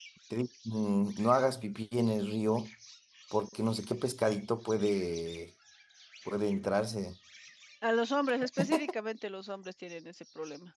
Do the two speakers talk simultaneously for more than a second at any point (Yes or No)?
No